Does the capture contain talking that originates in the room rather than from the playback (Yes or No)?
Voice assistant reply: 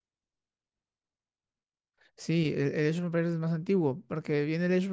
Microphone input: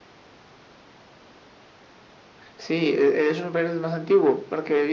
No